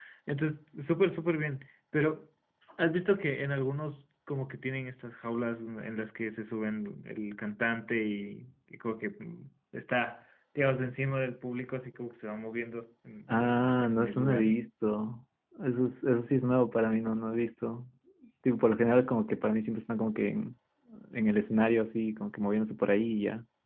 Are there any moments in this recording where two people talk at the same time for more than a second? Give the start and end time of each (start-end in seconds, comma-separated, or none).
13.3-14.5